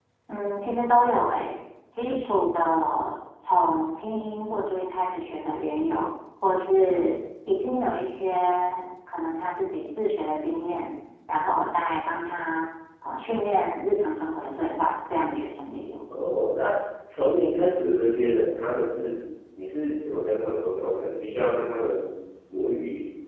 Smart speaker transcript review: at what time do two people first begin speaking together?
none

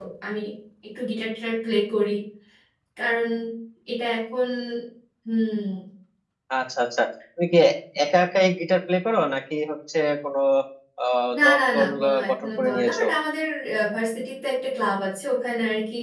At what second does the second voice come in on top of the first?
11.4 s

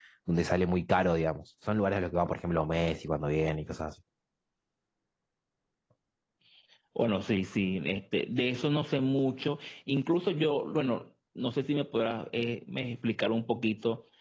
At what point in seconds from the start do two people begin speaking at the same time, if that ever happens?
none

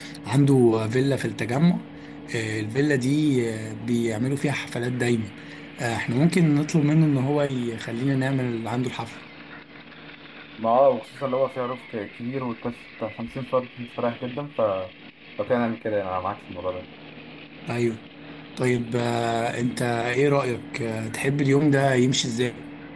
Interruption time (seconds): none

